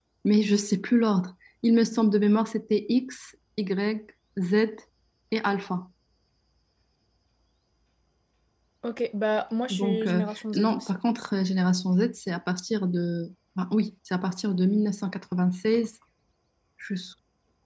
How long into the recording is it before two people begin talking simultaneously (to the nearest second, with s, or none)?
10 s